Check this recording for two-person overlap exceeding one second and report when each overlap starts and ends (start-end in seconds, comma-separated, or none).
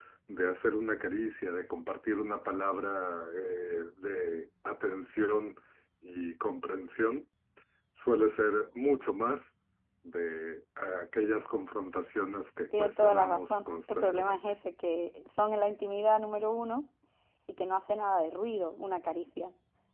12.8-14.4